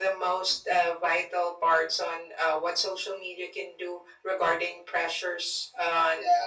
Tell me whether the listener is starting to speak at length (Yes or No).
No